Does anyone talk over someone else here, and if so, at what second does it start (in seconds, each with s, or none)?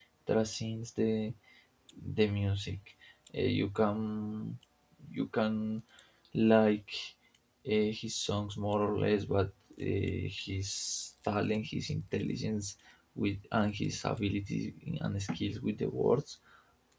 none